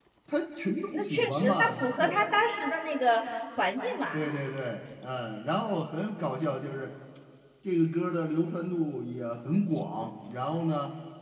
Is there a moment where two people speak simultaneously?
Yes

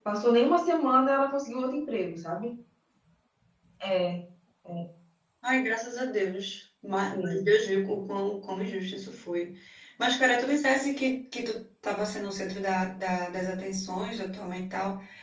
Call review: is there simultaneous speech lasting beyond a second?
No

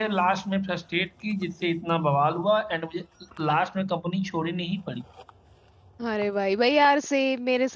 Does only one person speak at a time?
Yes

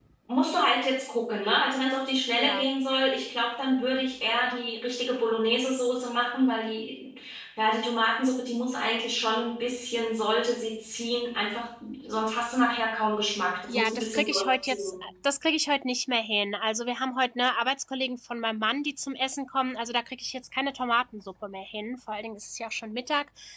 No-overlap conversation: No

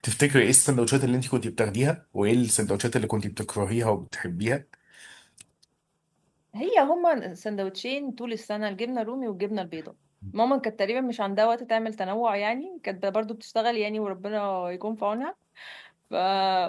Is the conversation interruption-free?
Yes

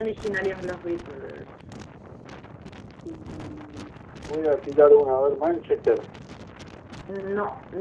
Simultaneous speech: No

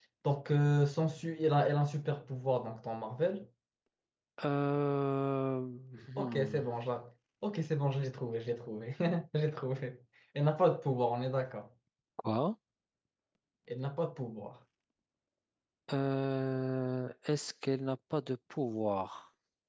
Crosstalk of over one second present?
No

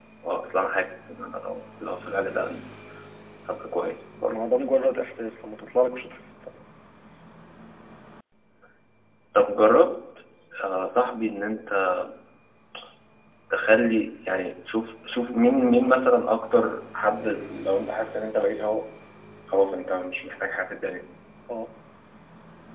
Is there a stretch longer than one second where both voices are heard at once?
No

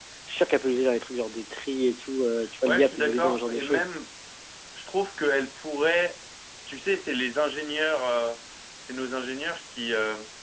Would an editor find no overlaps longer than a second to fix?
No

